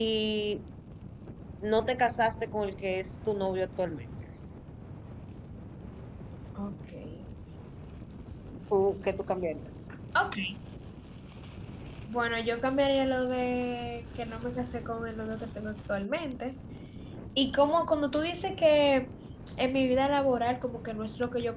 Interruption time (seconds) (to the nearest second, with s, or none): none